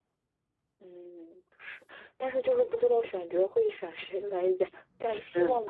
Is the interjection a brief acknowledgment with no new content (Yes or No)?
Yes